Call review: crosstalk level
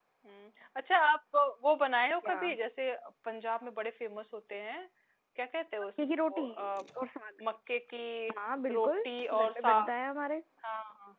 present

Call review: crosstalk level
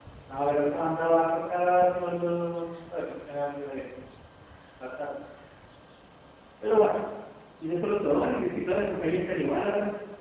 none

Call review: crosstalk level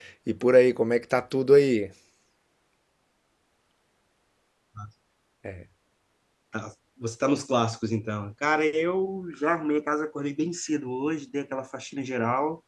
none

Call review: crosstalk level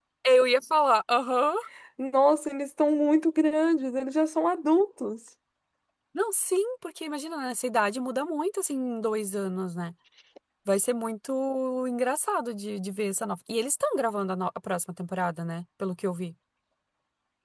none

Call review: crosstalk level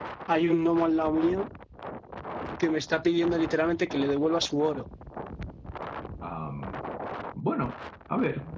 none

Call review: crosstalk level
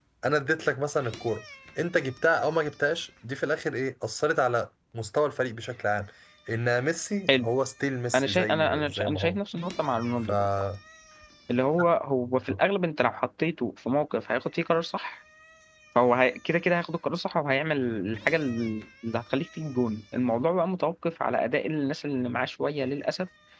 present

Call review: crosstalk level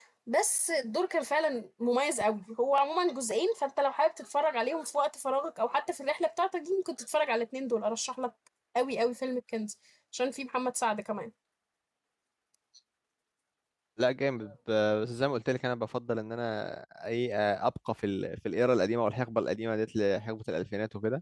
none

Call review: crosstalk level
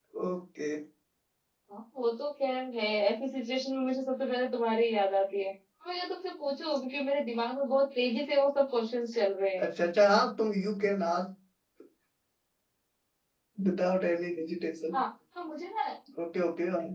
none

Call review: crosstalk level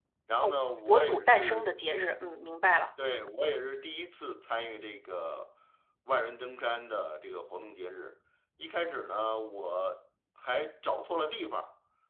present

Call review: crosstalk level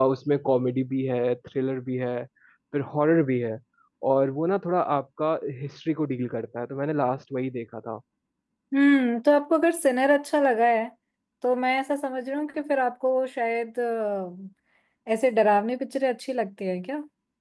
none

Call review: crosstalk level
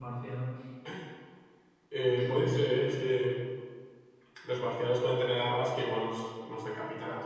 present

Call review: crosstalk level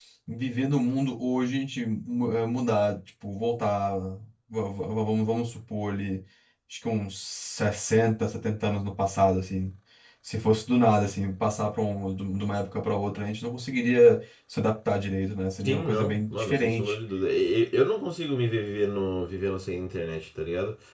present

